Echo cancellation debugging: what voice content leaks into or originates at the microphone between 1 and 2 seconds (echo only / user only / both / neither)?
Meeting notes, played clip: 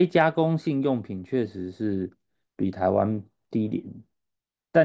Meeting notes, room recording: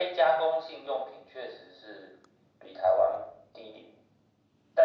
echo only